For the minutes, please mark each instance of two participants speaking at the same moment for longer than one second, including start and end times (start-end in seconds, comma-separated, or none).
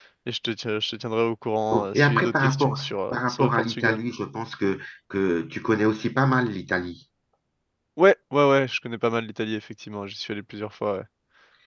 1.7-4.0